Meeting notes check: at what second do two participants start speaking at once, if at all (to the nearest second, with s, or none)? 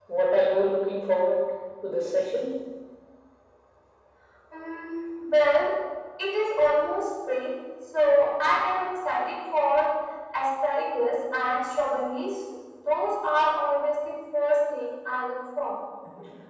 none